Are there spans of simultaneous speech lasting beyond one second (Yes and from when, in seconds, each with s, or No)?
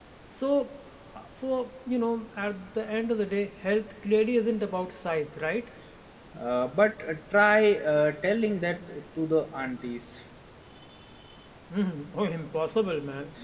No